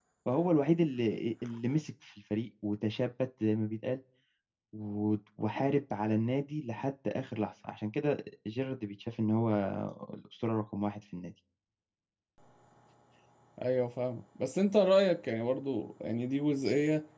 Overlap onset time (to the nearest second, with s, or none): none